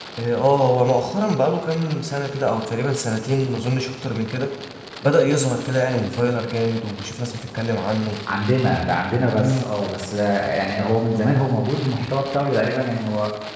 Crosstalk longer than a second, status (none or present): none